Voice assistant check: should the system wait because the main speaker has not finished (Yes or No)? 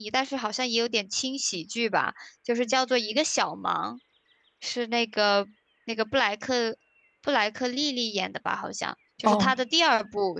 Yes